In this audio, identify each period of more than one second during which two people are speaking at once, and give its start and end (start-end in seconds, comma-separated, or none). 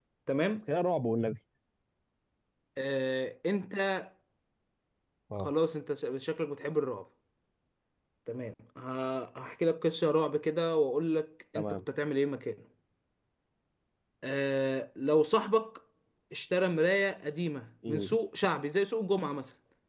none